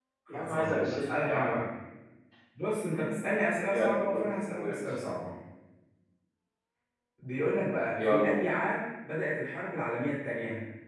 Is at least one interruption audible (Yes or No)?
Yes